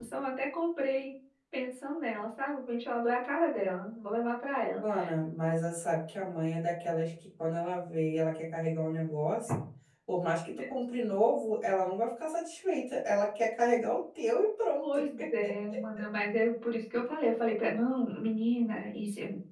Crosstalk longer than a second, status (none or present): none